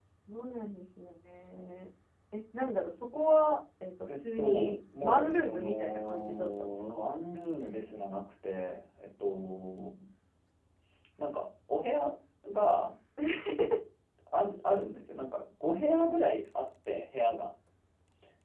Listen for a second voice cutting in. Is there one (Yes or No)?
Yes